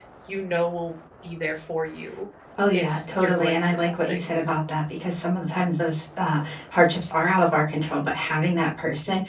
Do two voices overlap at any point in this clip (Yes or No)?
Yes